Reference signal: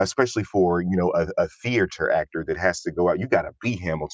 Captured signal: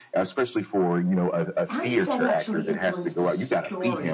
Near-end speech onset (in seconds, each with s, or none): 1.7 s